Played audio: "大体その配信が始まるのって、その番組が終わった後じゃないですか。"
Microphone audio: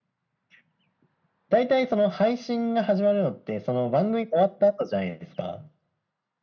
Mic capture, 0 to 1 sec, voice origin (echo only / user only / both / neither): neither